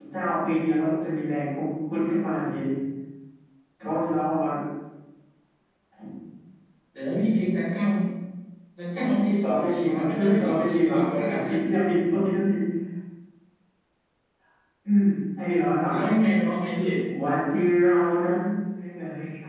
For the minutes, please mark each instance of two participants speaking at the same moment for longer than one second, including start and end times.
9.4-11.6

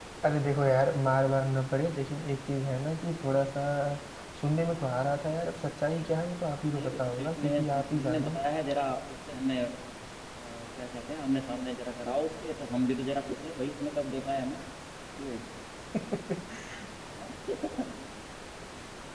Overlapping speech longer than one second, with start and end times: 6.7-8.3

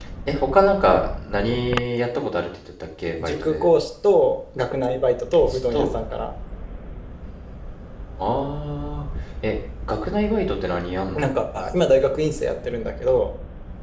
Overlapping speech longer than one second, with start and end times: none

